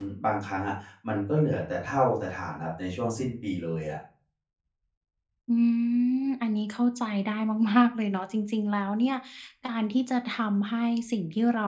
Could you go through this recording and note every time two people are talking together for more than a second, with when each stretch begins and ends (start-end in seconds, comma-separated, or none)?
none